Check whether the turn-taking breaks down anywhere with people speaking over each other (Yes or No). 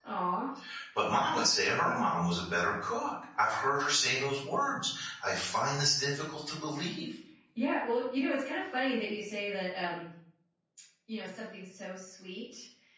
No